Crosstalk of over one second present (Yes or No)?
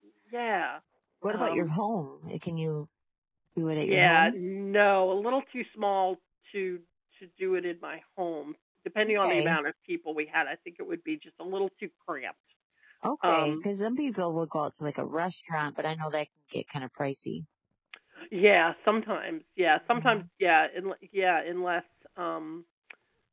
No